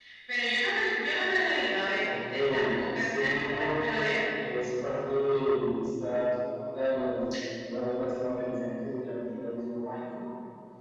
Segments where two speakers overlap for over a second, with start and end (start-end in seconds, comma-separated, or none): 2.0-3.8